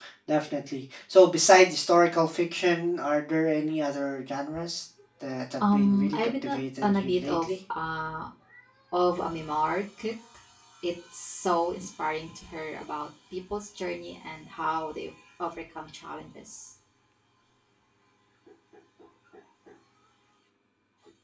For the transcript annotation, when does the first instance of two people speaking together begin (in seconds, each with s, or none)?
5.6 s